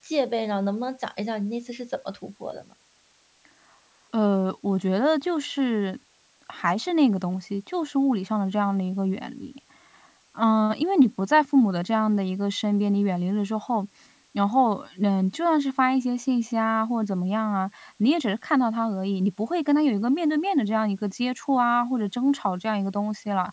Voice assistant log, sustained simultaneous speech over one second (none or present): none